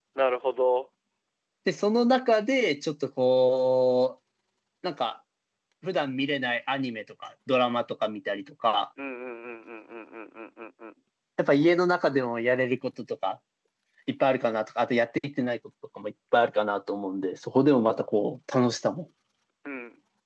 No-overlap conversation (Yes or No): Yes